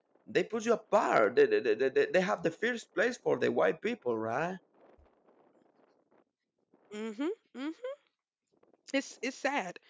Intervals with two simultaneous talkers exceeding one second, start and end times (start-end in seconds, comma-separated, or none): none